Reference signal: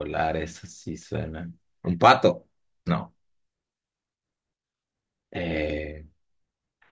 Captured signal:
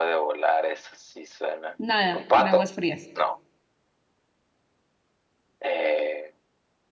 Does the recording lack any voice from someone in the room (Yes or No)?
No